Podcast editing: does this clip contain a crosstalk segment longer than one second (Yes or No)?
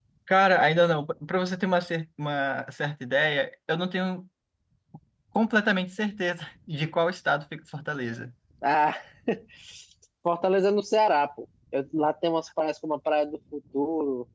No